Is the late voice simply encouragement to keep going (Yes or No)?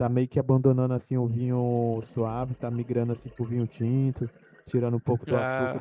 Yes